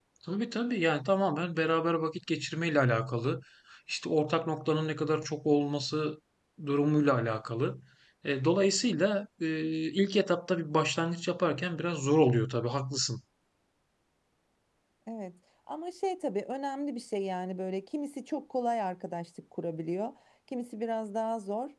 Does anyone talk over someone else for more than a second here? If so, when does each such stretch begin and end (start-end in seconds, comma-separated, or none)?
none